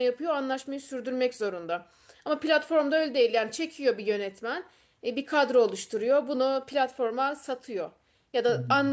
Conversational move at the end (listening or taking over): listening